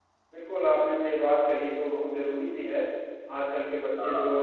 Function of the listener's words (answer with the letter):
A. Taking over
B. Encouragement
B